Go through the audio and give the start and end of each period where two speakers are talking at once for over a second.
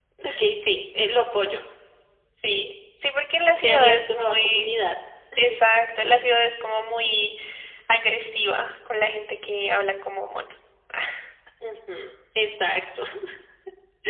3.6-4.8

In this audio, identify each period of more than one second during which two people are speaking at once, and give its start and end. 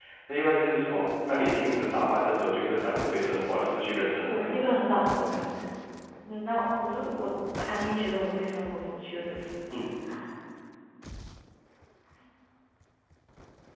none

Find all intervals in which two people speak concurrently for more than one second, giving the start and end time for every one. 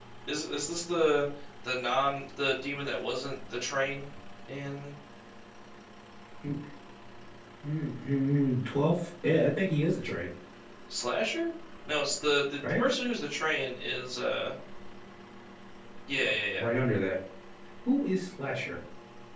none

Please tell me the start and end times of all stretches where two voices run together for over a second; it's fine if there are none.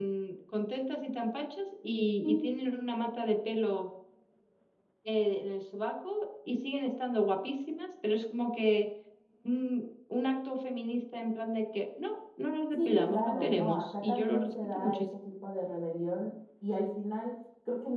12.7-15.0

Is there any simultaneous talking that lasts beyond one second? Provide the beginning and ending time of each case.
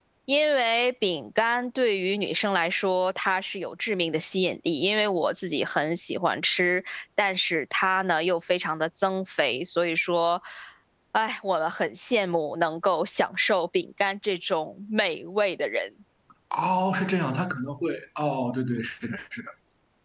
none

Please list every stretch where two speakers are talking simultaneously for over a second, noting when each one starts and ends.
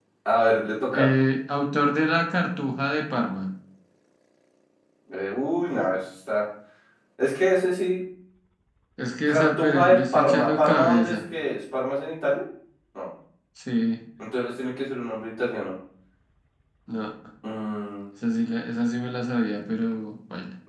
9.3-11.1

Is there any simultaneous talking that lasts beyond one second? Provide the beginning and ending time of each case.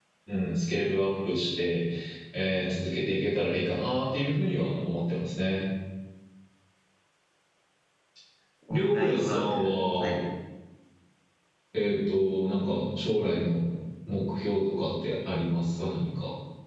8.7-10.2

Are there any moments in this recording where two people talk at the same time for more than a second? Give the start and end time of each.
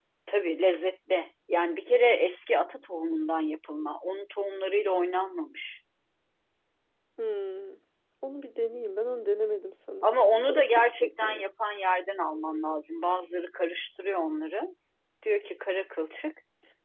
10.0-11.4

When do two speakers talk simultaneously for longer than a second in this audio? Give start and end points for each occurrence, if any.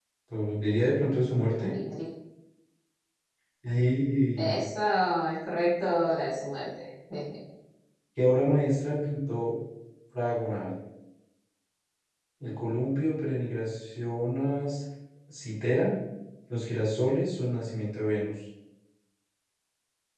none

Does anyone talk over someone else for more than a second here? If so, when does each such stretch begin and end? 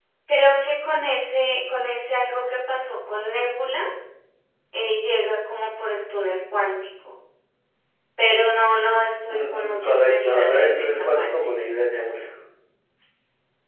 9.3-11.3

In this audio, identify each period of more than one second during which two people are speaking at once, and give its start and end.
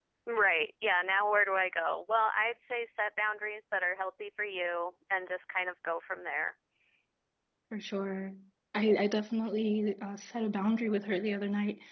none

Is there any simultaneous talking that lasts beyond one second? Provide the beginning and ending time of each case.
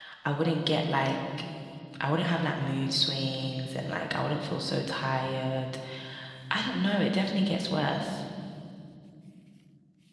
none

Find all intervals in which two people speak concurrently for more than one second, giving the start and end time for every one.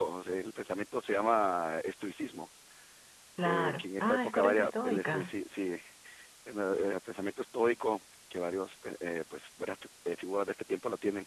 3.5-5.3

